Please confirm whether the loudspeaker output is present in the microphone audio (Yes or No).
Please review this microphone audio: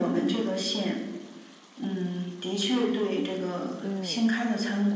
Yes